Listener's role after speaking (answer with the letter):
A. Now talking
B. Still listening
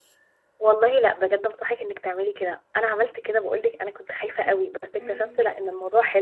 B